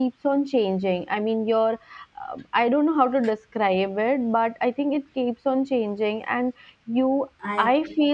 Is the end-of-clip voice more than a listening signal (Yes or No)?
No